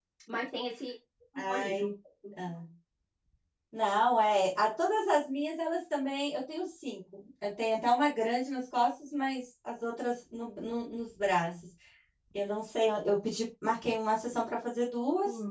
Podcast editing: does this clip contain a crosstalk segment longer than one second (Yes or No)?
No